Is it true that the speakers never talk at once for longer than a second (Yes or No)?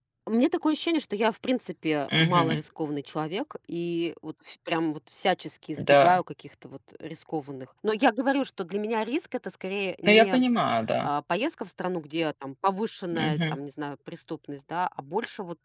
Yes